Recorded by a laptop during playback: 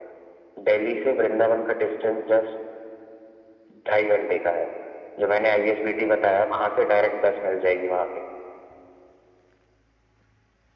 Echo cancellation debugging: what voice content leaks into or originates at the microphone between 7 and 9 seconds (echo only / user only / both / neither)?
echo only